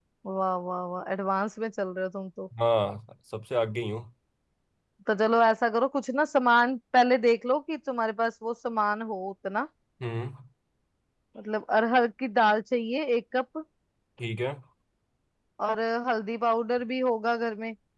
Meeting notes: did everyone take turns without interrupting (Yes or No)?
Yes